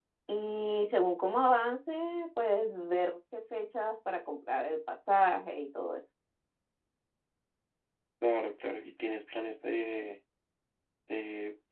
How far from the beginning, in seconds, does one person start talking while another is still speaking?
none

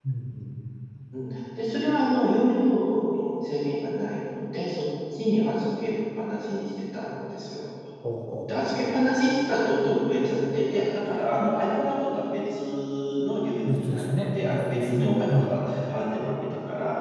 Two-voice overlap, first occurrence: 13.7 s

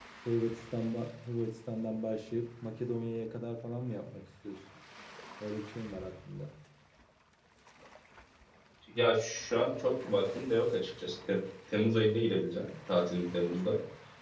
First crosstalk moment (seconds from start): none

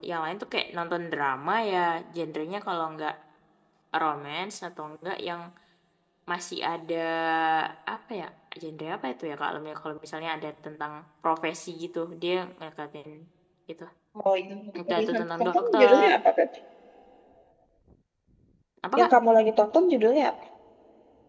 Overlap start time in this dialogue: 14.9 s

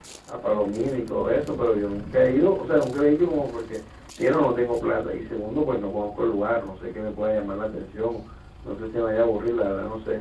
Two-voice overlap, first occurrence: none

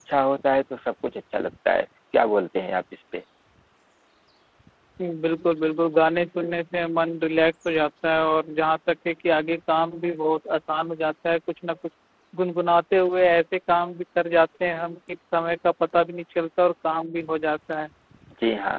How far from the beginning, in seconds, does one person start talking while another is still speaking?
none

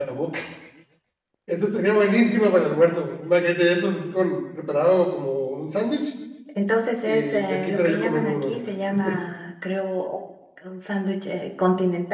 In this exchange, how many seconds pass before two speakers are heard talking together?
7.0 s

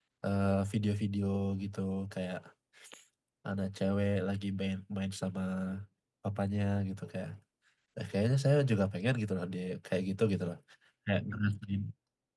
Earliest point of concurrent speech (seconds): none

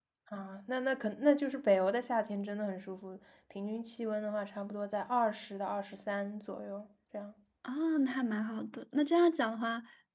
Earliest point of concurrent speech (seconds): none

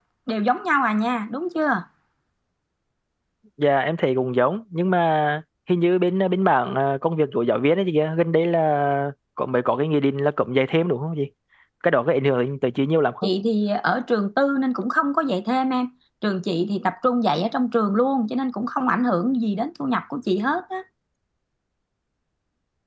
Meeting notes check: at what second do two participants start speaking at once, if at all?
none

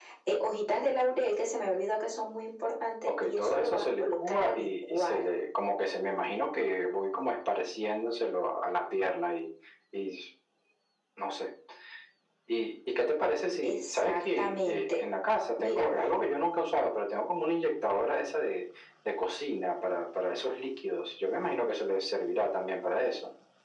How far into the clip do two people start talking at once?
3.1 s

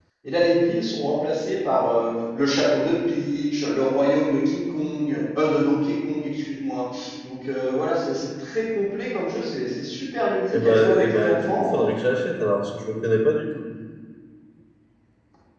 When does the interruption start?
10.5 s

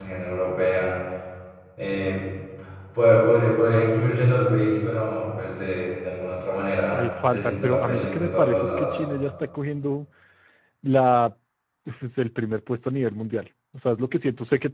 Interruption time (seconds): 6.9 s

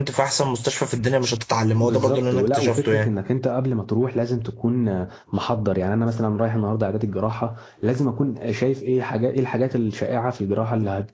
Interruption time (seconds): 1.8 s

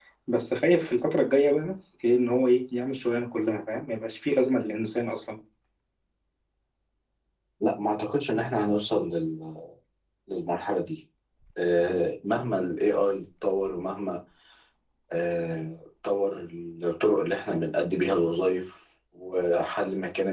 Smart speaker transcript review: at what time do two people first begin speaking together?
none

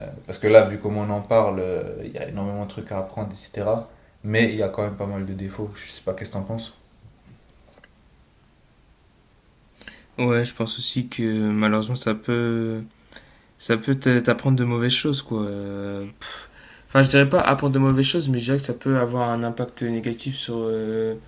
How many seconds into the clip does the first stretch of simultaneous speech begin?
none

